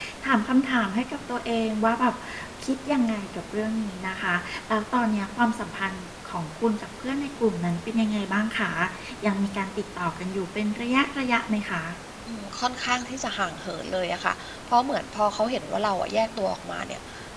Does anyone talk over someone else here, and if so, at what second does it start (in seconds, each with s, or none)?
none